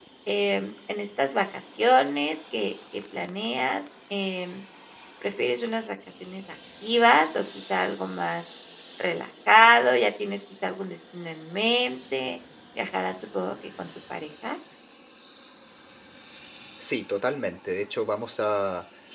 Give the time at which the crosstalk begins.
none

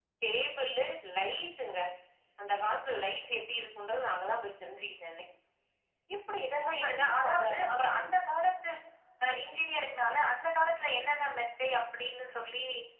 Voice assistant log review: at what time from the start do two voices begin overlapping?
6.6 s

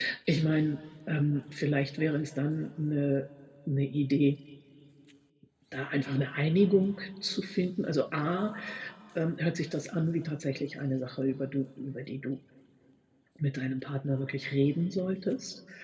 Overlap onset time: none

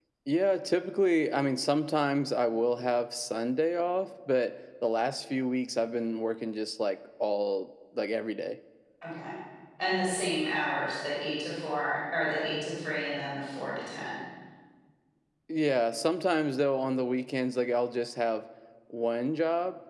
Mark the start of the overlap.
none

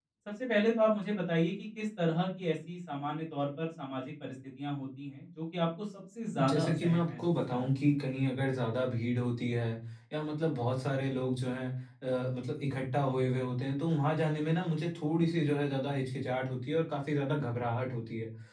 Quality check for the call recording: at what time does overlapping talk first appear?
6.3 s

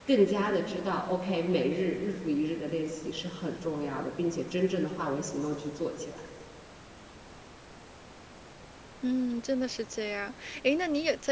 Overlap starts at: none

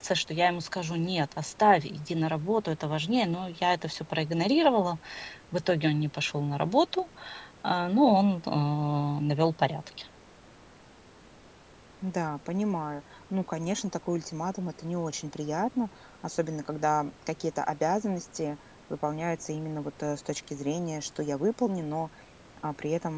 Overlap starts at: none

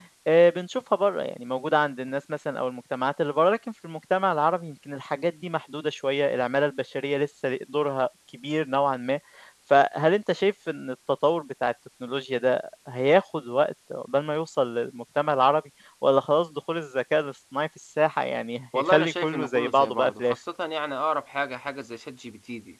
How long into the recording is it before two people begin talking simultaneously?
18.7 s

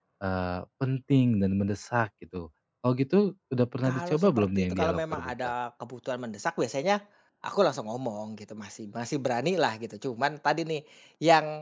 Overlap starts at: 3.8 s

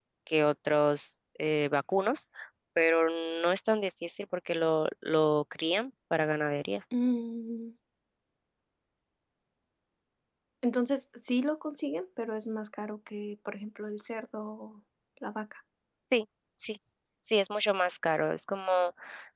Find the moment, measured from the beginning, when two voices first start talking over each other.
none

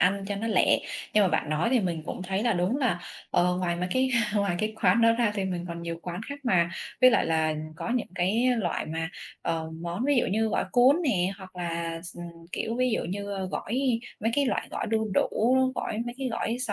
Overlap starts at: none

